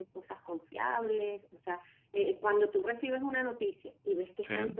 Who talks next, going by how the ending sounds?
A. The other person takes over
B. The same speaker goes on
B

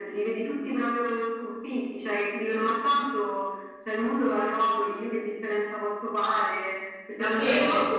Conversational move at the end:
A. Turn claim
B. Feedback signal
A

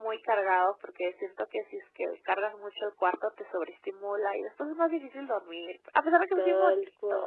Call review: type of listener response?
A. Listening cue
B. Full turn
B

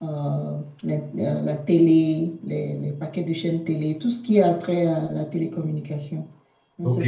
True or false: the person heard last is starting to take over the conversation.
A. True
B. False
A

